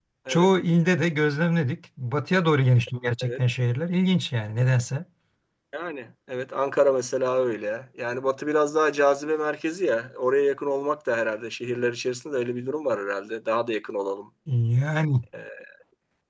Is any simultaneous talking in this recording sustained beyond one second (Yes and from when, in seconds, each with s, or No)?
No